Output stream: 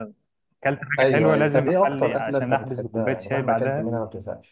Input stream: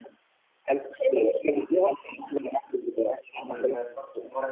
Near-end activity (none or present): present